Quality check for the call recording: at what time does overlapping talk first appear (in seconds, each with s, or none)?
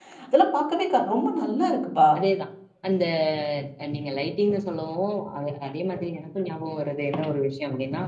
none